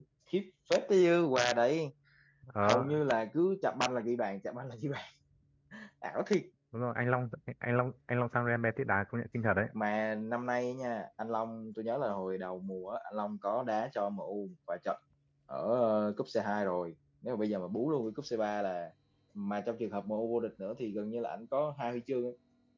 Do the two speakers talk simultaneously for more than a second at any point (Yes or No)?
No